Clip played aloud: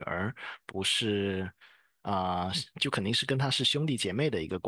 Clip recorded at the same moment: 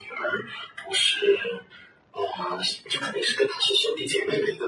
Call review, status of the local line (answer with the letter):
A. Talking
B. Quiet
B